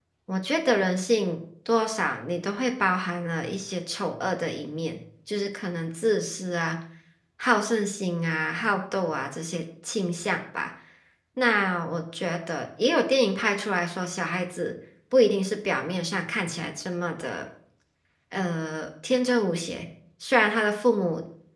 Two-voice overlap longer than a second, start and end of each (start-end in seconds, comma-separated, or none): none